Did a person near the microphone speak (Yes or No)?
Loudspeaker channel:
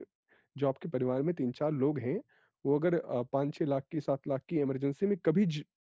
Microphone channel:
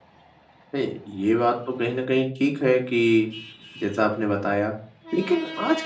Yes